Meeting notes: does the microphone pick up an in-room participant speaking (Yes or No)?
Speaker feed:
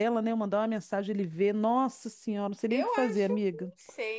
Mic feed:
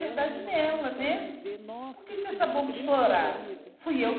Yes